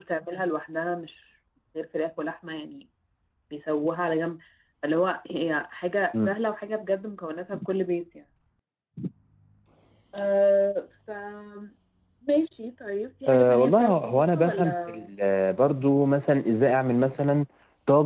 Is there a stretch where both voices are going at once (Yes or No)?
Yes